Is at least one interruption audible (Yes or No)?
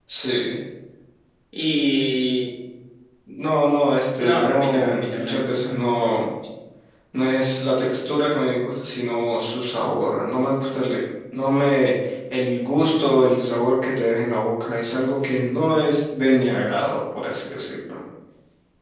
Yes